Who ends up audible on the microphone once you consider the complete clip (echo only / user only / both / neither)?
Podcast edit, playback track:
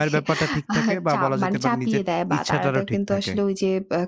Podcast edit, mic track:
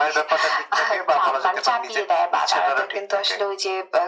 echo only